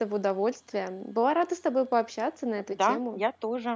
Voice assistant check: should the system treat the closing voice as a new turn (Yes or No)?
Yes